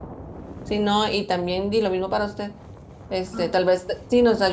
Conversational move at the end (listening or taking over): listening